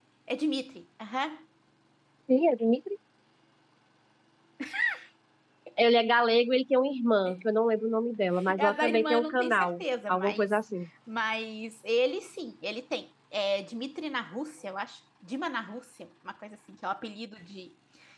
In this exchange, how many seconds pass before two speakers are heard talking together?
8.4 s

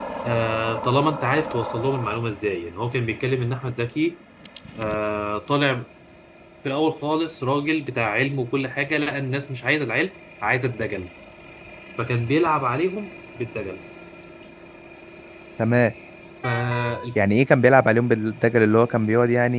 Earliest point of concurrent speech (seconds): none

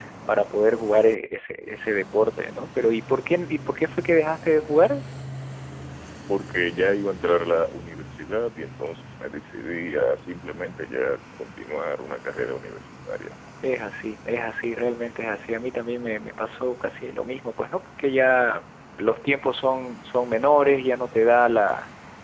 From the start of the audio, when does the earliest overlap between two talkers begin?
none

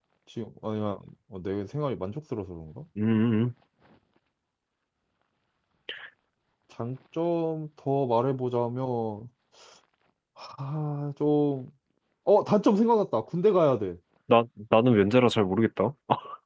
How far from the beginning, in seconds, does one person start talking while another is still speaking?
none

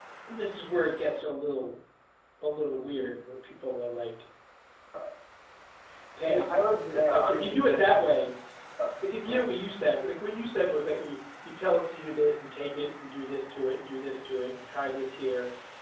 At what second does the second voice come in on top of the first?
6.3 s

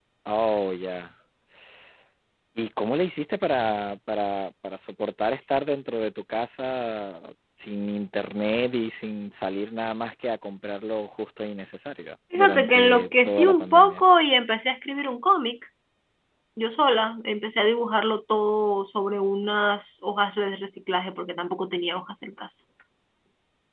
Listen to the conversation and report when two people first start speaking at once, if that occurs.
12.3 s

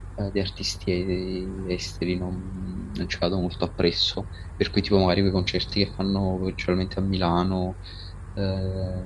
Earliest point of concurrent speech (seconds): none

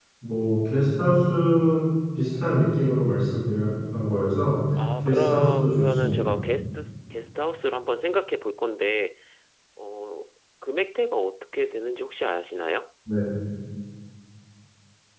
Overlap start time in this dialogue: 5.0 s

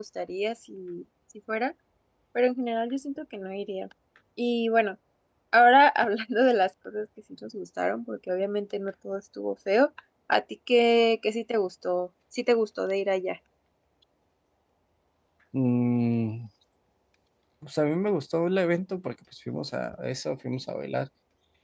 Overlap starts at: none

